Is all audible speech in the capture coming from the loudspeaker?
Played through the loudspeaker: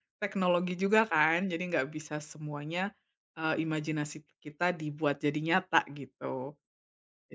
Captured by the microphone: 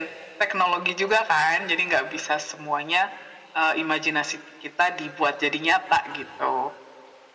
Yes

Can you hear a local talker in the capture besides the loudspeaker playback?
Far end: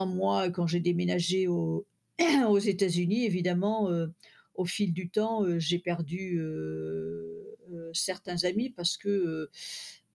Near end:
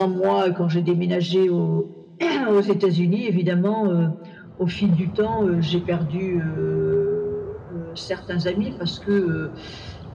No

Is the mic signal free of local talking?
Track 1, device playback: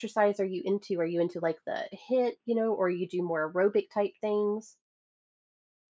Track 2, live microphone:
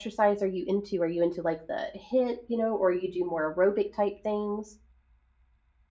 Yes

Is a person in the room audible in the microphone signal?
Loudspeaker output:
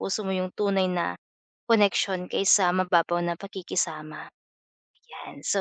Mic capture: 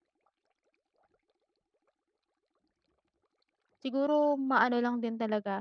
Yes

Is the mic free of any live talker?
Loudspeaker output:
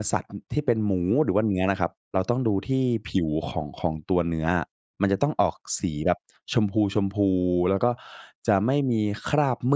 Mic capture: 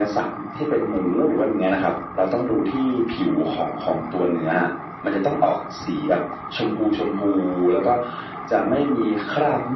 Yes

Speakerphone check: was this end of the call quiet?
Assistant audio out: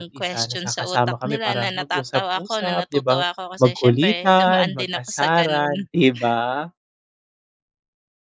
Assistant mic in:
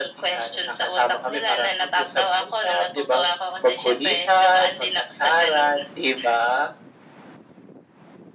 Yes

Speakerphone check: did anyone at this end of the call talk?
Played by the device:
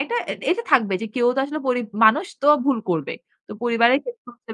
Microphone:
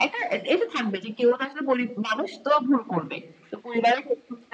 No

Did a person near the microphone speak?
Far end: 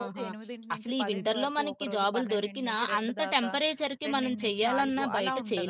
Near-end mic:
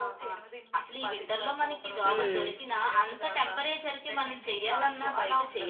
Yes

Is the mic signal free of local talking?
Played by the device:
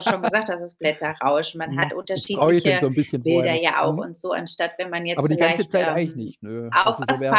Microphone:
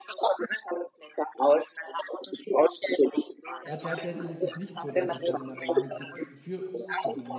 No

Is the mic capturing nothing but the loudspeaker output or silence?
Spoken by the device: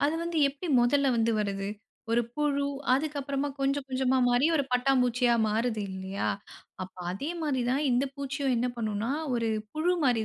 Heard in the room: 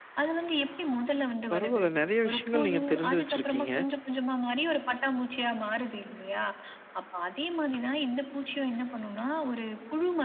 No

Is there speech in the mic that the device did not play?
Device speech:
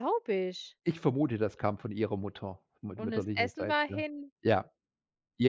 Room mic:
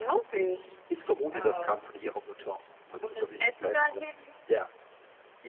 Yes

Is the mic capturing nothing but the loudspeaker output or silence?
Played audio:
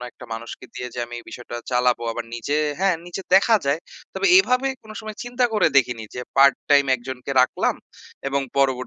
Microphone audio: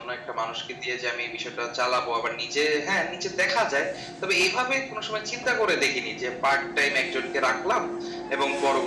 Yes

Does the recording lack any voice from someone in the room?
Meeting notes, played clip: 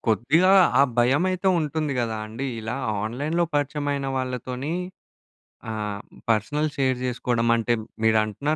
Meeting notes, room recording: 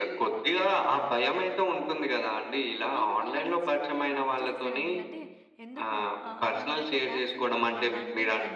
No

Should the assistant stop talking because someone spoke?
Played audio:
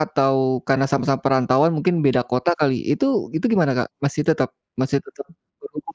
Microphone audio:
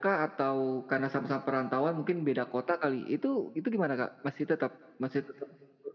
No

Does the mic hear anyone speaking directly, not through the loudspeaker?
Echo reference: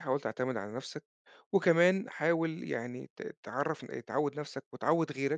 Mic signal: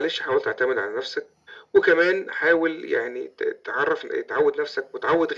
No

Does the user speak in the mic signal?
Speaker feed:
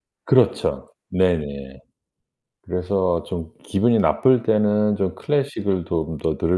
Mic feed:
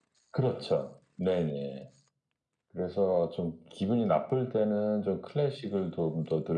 No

